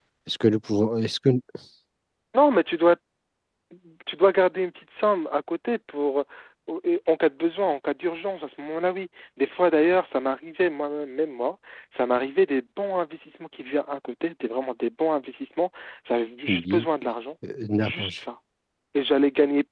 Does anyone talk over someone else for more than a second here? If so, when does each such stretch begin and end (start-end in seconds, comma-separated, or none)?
none